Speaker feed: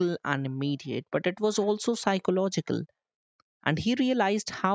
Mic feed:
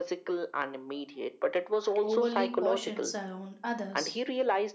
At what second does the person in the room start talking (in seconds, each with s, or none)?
2.0 s